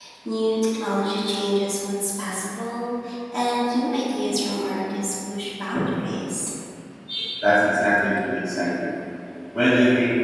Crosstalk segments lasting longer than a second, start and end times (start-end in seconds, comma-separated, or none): none